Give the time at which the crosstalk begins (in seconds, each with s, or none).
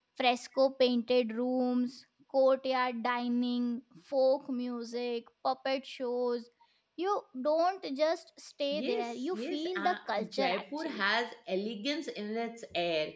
8.7 s